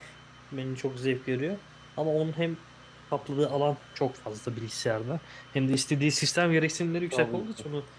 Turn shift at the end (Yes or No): No